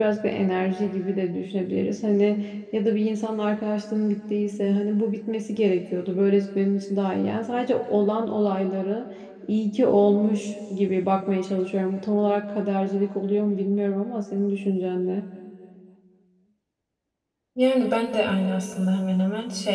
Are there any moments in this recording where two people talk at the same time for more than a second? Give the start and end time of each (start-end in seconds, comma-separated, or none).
none